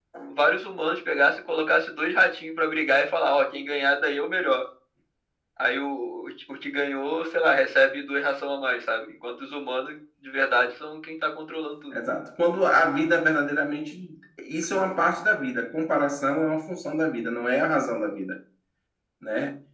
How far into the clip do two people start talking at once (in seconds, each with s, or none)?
none